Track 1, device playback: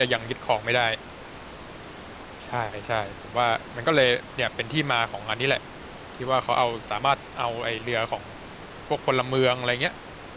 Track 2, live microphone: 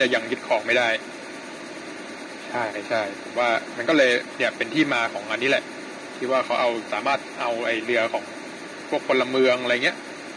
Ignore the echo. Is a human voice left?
No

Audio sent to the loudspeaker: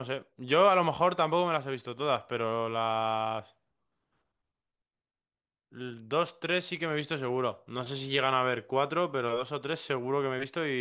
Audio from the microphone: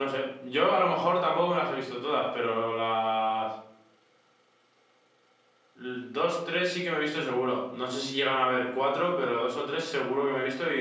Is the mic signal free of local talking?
Yes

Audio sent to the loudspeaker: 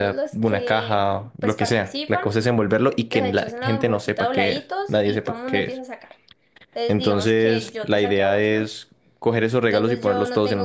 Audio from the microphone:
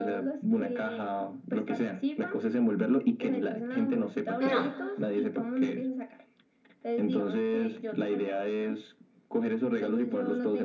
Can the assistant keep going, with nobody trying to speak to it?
No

